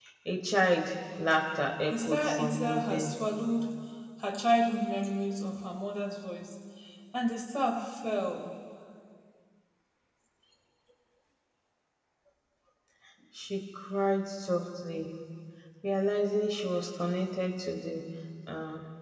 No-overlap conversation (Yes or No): No